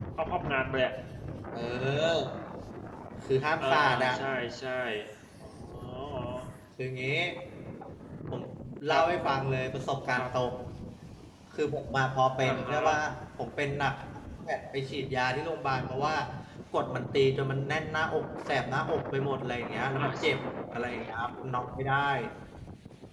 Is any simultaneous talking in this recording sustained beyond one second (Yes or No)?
No